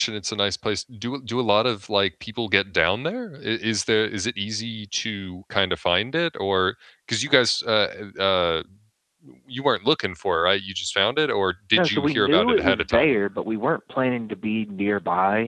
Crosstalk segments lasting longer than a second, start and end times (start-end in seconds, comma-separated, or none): 11.7-13.1